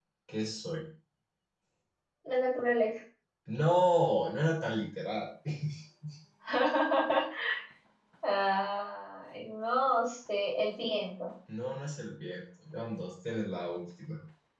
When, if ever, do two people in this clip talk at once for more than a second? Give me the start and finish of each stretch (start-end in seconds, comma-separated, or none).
none